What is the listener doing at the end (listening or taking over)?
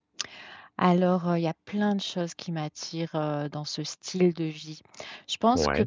listening